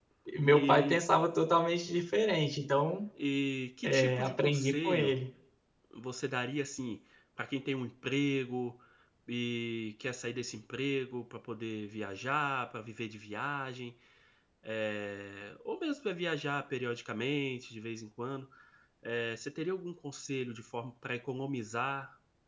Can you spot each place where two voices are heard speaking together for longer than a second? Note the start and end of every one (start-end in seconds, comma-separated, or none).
3.8-5.1